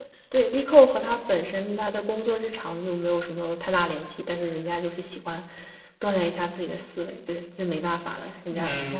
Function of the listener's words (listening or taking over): taking over